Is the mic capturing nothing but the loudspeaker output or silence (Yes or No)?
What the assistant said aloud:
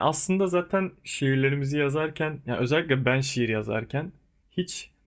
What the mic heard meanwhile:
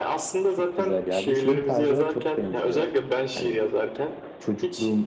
No